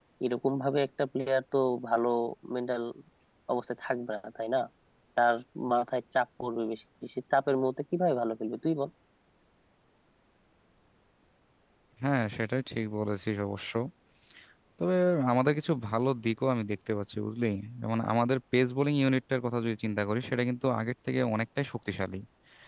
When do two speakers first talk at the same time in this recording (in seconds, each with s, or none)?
none